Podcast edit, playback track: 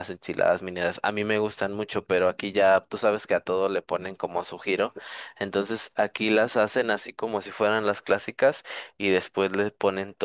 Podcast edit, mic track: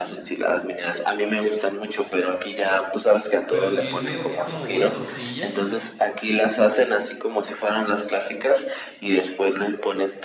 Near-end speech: present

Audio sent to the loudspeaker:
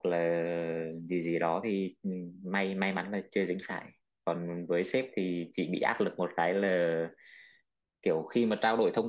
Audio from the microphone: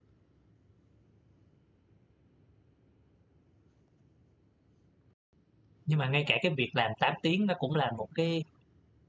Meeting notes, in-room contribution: present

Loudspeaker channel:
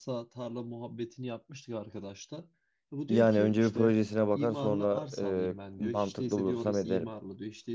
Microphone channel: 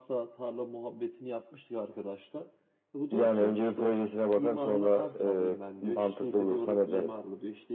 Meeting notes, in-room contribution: none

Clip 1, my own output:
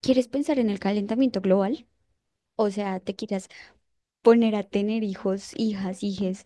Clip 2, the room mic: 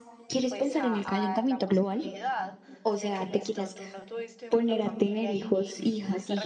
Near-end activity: present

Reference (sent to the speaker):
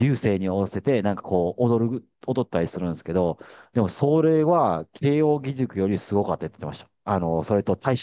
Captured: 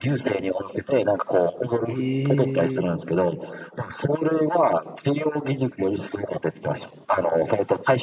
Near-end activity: present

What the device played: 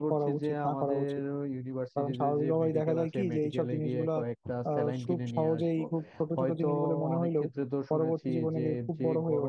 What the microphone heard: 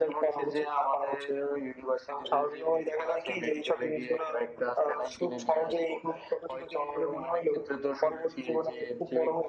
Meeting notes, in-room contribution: none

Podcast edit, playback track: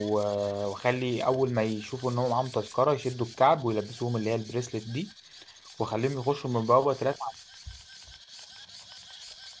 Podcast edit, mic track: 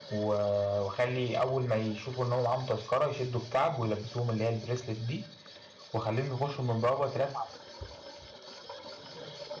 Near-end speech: none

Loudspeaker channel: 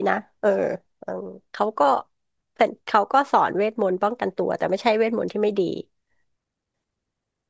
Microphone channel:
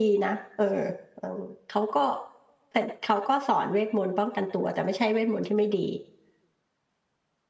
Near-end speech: none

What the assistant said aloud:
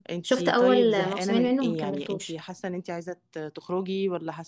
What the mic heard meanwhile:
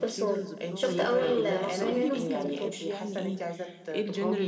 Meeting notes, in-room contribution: present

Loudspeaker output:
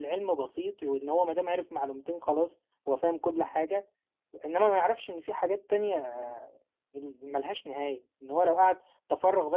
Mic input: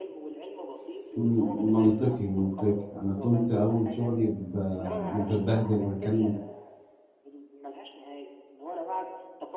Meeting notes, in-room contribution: present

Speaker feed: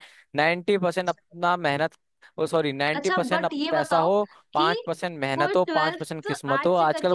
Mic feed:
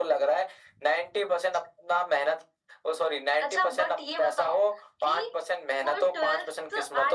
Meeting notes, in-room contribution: none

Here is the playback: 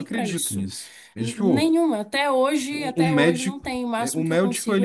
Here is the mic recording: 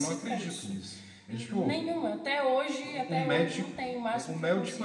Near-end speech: none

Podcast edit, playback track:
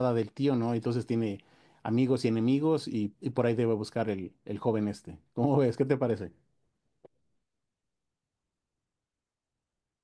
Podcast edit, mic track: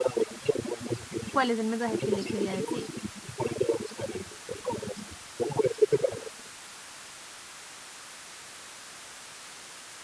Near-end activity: present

